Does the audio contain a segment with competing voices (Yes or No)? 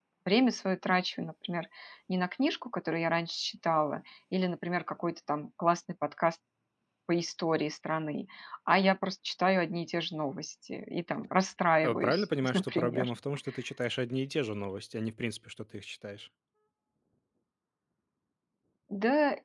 Yes